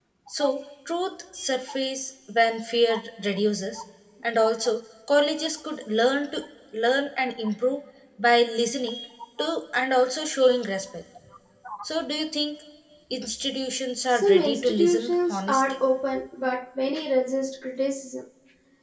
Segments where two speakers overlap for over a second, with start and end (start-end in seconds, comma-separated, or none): 14.1-15.8